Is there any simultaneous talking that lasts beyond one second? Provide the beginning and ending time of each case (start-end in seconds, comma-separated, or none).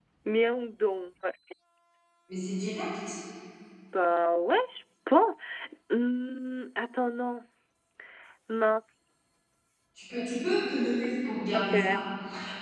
none